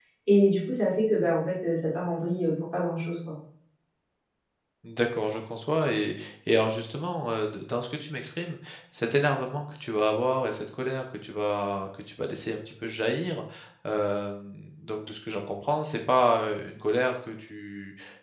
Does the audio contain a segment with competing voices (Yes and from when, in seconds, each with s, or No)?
No